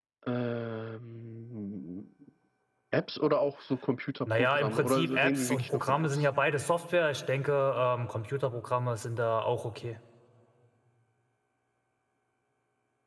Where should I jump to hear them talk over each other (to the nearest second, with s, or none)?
4 s